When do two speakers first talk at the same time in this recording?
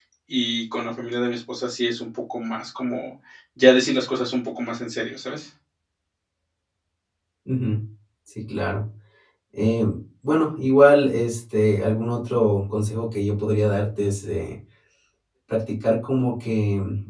none

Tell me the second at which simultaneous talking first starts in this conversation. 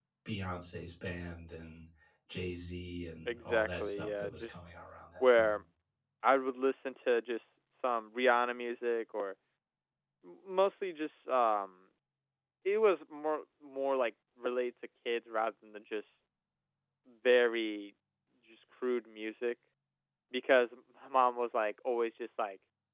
3.3 s

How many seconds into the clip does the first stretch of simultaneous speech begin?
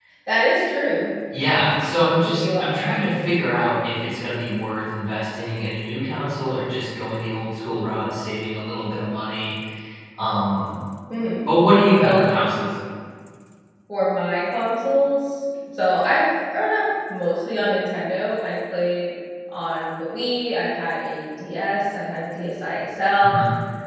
2.0 s

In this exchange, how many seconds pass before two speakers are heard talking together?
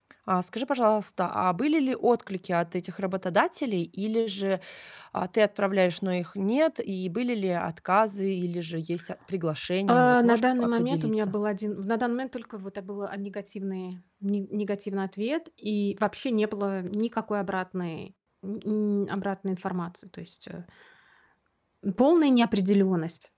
9.9 s

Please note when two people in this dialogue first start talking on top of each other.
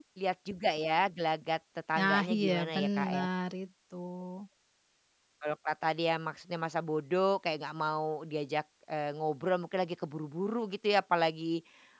1.9 s

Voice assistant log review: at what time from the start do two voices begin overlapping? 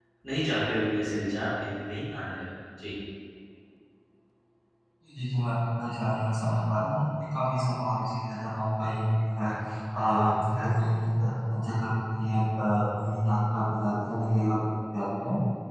none

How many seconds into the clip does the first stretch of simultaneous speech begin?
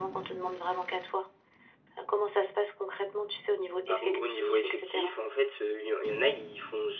3.9 s

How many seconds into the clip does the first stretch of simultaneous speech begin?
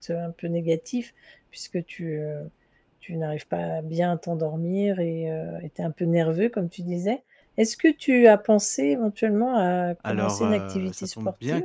10.0 s

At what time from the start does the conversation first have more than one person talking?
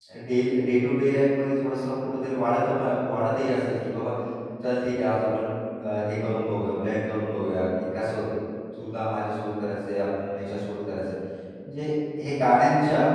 none

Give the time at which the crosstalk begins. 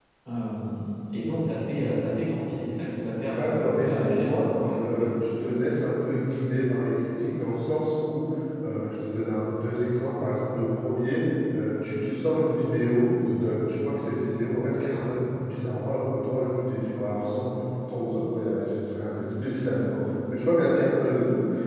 3.2 s

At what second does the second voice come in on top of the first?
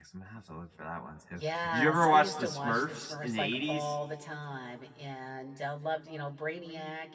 1.3 s

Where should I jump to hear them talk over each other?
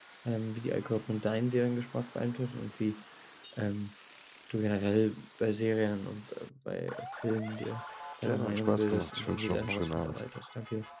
8.2 s

